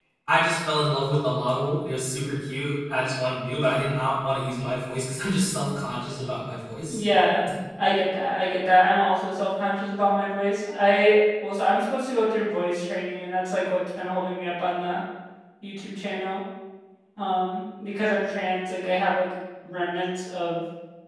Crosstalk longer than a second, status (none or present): none